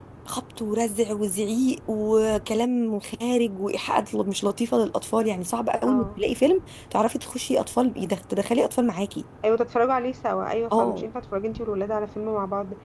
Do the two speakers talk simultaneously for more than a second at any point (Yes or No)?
No